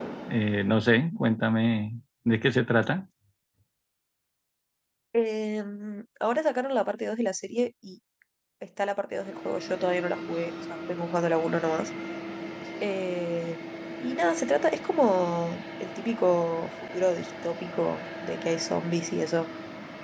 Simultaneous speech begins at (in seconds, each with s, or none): none